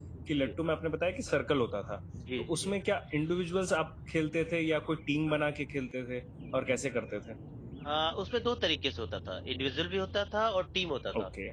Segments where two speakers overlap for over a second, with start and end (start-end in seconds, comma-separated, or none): none